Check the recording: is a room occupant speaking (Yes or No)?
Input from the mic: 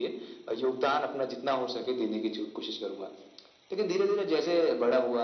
No